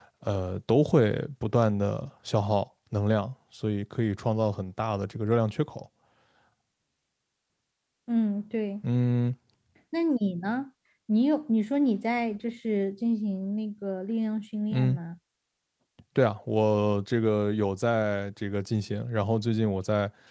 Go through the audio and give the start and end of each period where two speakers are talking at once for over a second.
none

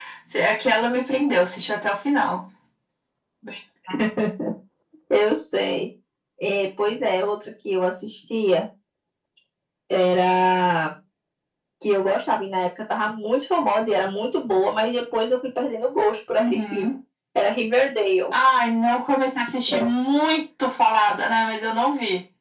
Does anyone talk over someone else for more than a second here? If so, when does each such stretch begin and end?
none

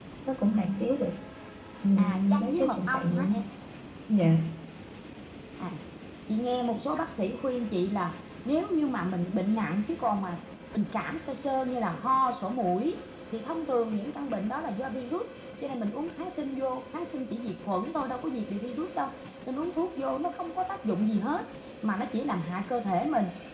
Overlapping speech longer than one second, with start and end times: 2.0-3.3

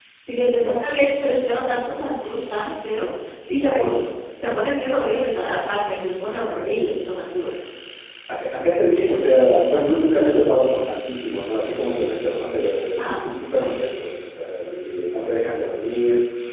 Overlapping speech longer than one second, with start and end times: none

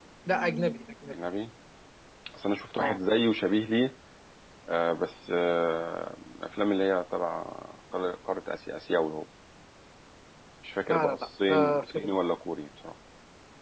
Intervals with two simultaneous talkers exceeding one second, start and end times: 10.9-12.1

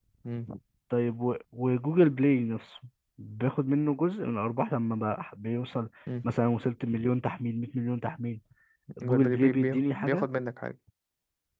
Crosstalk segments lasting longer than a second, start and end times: 9.0-10.3

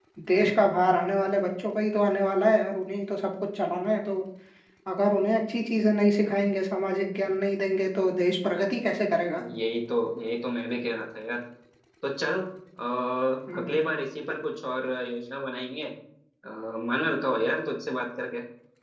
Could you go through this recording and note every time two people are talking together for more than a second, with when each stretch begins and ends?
none

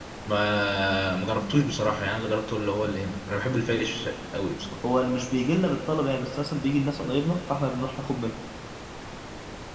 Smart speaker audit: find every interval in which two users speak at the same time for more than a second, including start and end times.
none

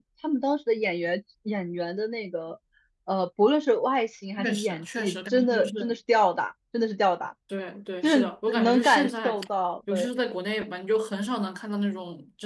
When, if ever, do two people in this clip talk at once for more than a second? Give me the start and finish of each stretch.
4.4-6.0, 8.0-9.4

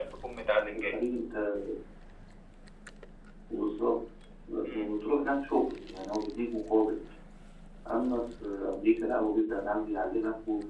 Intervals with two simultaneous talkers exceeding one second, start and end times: none

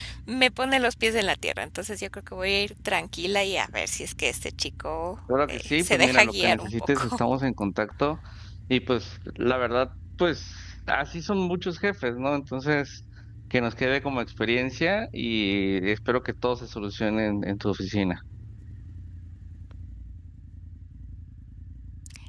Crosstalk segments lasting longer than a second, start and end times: 5.5-7.2

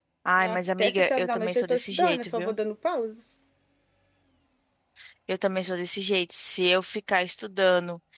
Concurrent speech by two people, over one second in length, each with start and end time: 0.5-2.5

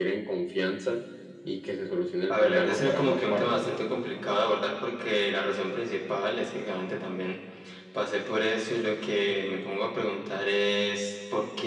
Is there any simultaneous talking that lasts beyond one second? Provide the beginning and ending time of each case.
2.3-3.7

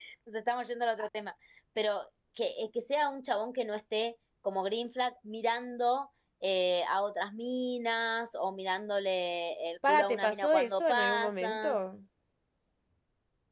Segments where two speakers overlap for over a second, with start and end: 9.9-11.8

